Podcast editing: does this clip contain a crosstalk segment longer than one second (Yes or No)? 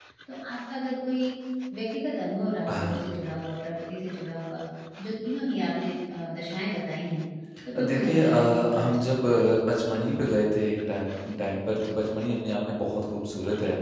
Yes